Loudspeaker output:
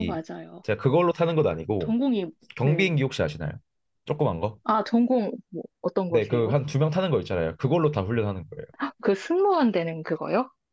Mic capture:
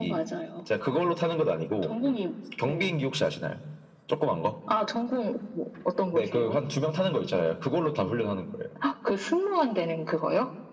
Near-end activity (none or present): none